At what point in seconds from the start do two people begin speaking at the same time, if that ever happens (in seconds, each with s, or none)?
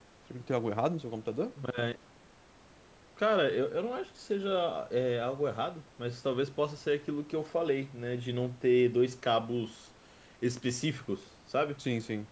none